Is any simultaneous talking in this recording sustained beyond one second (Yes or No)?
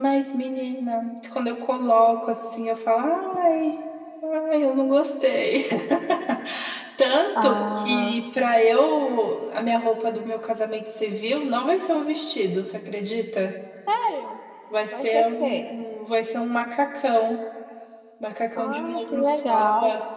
Yes